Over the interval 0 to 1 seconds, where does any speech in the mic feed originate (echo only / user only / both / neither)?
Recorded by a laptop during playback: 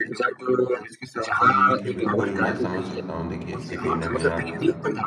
echo only